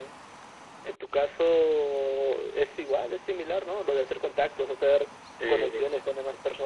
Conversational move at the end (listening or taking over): listening